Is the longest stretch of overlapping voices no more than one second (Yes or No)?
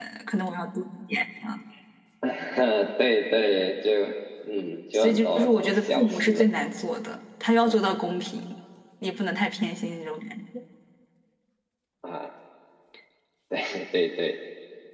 No